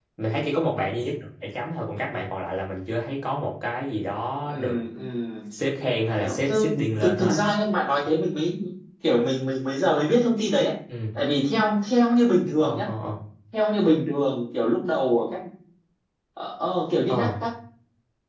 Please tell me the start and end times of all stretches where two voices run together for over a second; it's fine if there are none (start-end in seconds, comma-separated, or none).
none